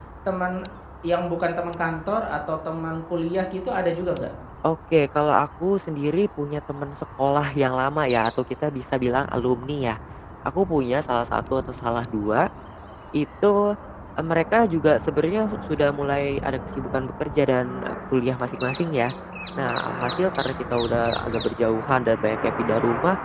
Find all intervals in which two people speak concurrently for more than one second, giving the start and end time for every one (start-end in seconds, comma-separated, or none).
none